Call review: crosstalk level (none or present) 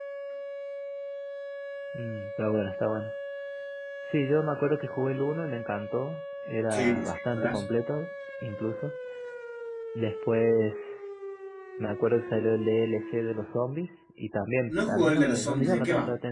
present